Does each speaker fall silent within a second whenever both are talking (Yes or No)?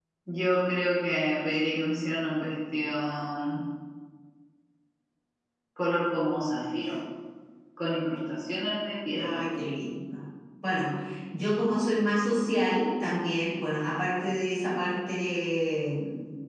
Yes